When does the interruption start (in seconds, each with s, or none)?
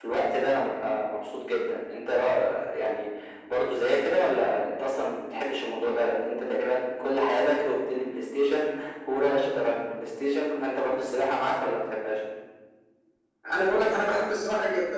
none